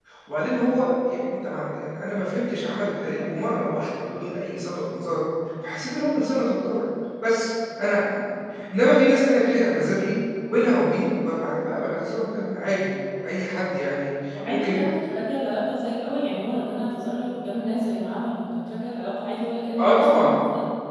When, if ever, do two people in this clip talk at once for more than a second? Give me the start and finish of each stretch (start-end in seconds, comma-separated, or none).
none